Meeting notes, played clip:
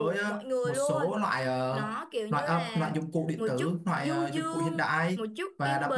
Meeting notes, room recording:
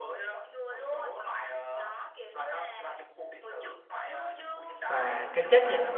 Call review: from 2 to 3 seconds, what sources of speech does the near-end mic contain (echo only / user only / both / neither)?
echo only